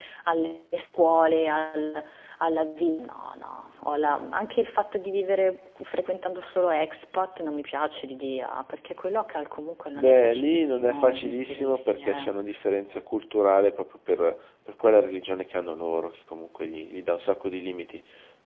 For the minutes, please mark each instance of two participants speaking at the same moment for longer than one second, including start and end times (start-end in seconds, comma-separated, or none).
9.9-12.3